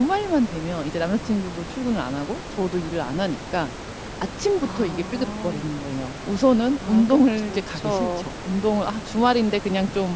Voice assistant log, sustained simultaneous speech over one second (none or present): present